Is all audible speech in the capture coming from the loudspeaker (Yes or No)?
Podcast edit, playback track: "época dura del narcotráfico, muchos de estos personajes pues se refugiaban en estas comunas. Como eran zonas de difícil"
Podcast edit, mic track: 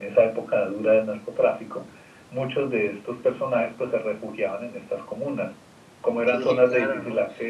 No